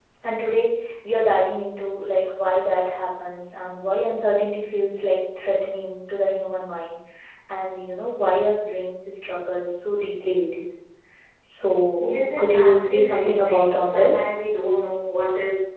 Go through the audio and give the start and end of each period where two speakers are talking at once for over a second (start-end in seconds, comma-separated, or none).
12.0-14.2